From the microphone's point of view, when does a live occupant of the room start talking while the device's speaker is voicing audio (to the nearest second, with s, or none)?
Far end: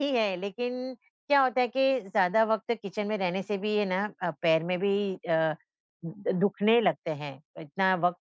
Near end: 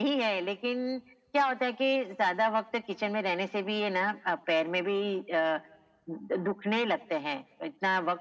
none